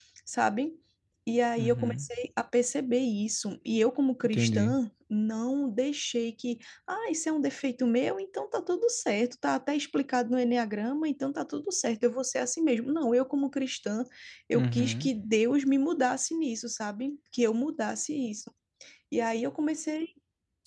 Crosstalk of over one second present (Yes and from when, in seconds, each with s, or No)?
No